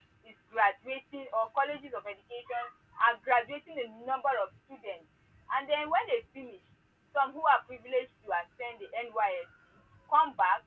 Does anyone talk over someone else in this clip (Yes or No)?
No